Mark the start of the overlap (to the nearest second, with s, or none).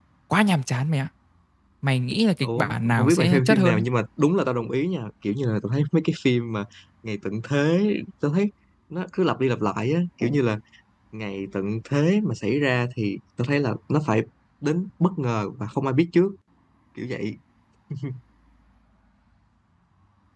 2 s